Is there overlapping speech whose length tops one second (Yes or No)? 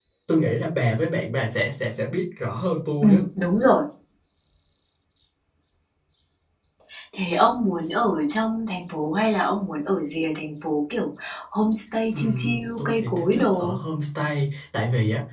Yes